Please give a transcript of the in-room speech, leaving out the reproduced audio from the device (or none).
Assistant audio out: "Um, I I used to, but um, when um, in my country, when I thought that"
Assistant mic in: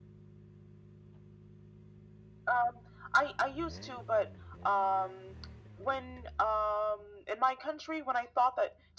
none